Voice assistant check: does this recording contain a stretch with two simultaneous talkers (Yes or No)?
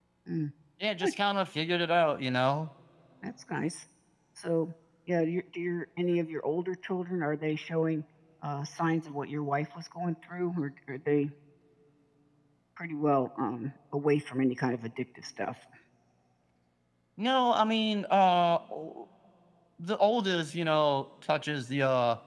No